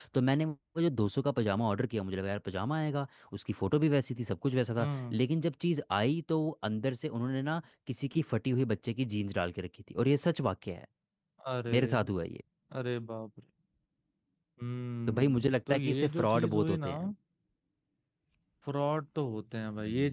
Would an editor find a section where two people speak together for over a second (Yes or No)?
Yes